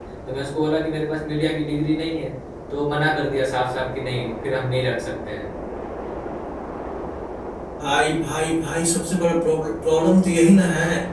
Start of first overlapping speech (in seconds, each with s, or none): none